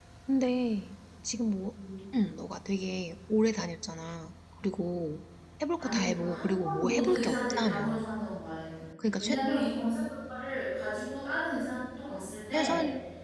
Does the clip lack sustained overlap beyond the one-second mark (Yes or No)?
No